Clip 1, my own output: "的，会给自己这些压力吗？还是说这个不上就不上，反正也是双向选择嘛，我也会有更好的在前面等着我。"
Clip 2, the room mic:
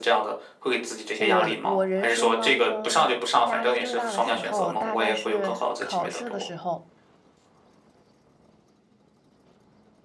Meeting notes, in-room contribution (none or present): present